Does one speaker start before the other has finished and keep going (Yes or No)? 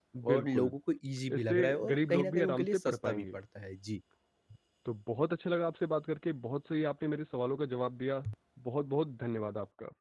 Yes